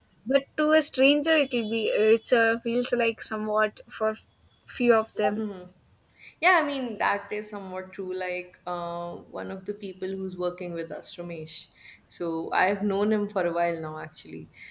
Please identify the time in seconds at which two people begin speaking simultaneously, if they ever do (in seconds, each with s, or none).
none